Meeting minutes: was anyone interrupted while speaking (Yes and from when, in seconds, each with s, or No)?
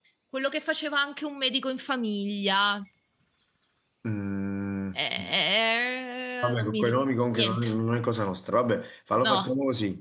Yes, from 6.4 s